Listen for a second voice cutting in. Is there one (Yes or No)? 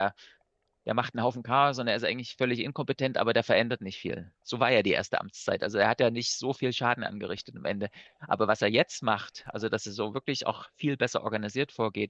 No